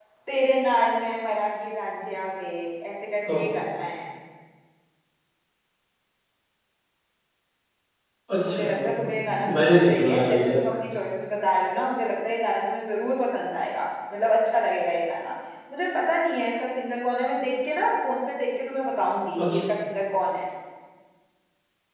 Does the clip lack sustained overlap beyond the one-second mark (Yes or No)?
No